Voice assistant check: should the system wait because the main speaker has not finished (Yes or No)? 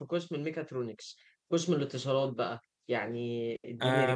No